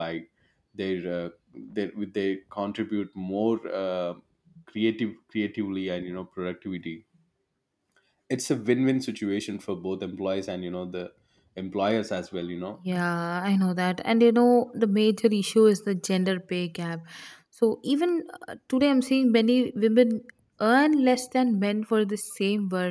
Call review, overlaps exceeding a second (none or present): none